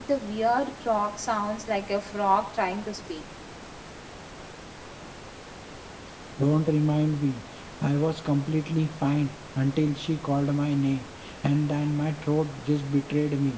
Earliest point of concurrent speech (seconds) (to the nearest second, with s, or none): none